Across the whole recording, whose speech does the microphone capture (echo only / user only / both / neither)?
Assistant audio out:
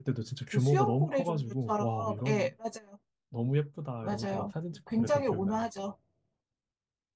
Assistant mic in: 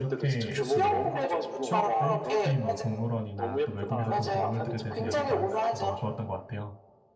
both